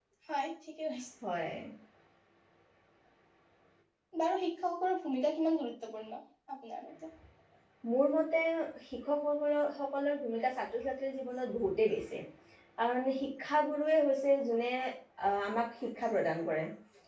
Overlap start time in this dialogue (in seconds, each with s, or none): none